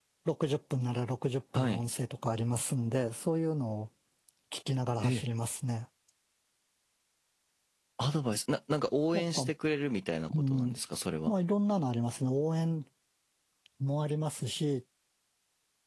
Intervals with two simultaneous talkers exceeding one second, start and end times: none

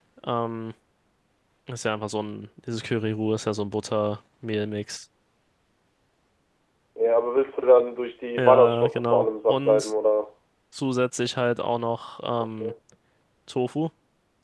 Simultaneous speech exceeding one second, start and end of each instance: 8.4-9.9

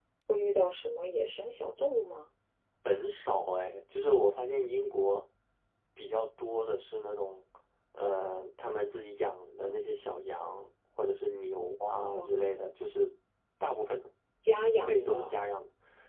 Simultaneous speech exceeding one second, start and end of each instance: none

